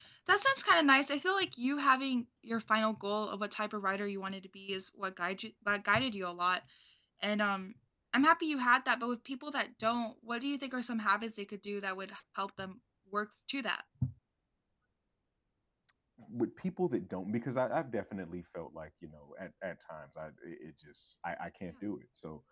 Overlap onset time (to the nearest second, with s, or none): none